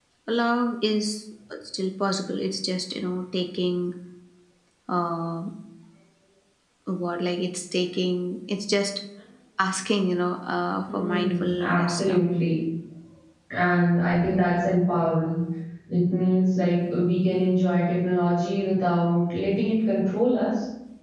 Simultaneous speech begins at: 10.9 s

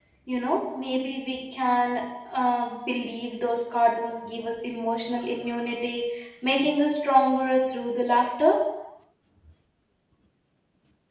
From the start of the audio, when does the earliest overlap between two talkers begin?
none

